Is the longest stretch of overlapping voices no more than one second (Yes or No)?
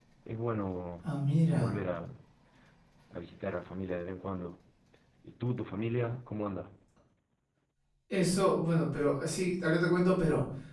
Yes